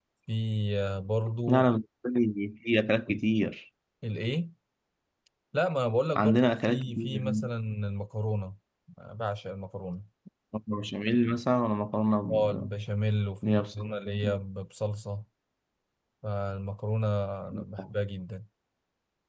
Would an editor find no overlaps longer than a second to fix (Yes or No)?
No